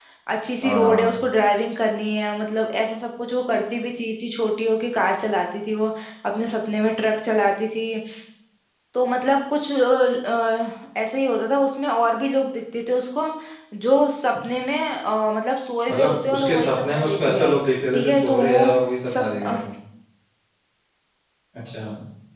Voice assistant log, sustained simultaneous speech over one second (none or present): present